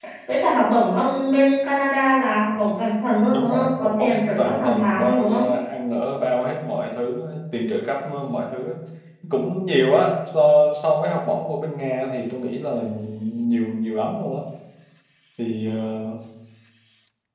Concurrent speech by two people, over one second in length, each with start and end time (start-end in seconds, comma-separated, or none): 3.3-5.4